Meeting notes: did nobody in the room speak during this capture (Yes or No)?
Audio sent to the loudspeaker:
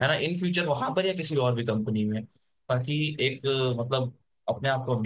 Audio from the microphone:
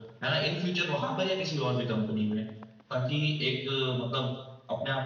Yes